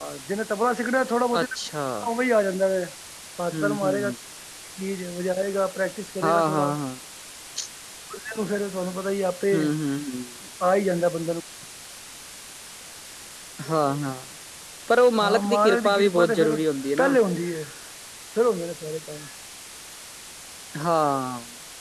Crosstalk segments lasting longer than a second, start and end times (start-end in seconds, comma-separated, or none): 15.2-16.6